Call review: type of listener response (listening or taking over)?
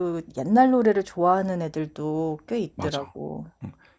taking over